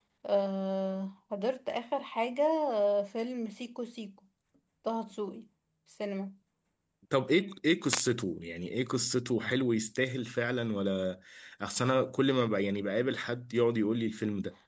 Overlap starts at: none

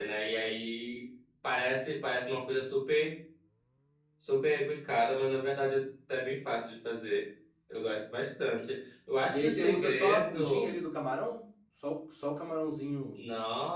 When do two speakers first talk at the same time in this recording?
9.3 s

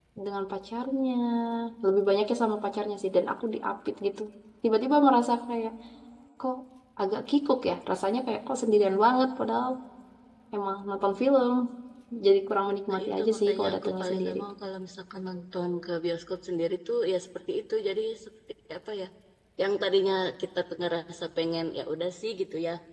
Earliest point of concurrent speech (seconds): 12.9 s

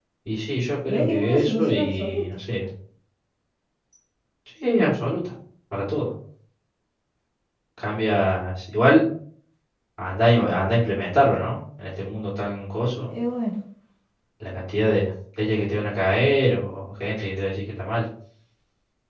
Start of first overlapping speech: 0.9 s

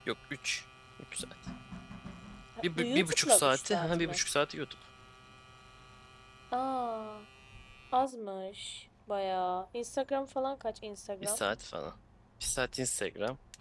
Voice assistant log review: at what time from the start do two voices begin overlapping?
2.6 s

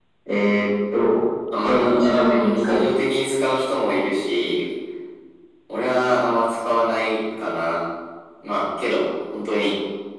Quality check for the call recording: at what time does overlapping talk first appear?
1.5 s

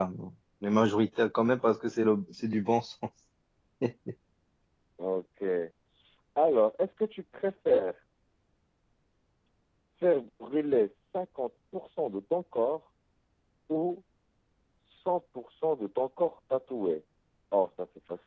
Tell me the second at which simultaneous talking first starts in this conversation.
none

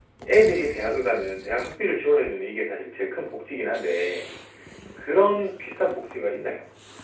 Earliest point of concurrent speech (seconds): none

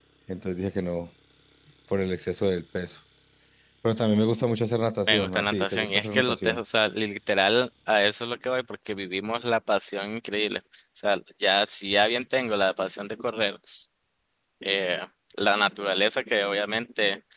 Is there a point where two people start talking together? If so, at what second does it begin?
5.1 s

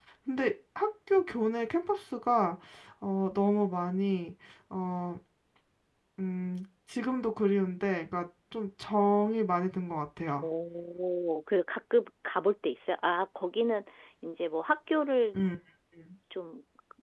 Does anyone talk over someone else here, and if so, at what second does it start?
none

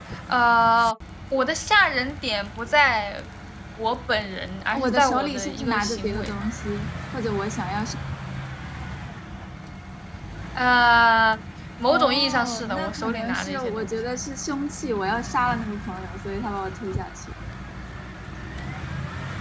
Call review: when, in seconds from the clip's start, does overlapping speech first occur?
4.7 s

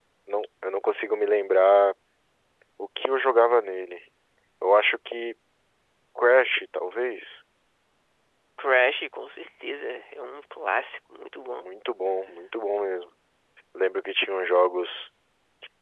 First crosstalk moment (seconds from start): none

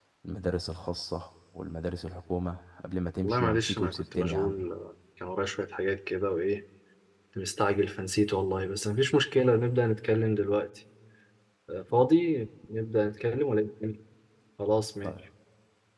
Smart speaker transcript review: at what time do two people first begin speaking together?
3.2 s

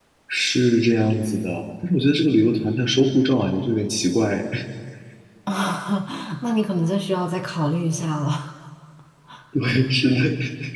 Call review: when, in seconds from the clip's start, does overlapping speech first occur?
none

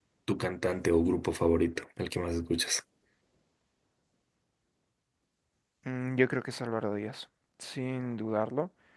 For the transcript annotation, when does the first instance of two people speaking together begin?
none

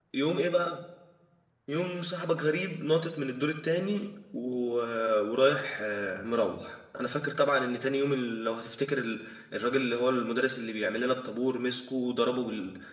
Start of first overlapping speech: none

